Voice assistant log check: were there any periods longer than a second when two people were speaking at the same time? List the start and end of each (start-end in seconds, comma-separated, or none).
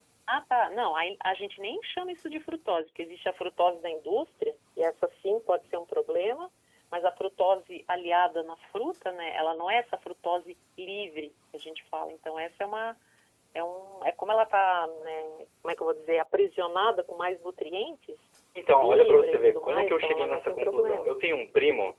18.8-21.1